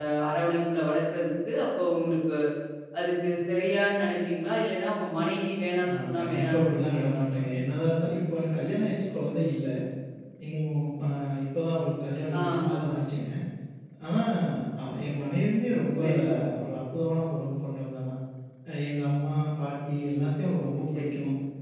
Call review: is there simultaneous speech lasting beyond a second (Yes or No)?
Yes